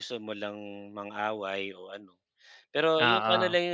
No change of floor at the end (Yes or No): Yes